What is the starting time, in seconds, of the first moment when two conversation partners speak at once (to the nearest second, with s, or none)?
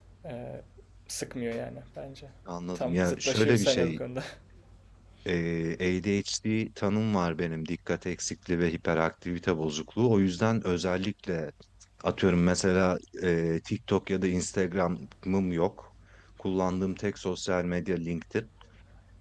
3 s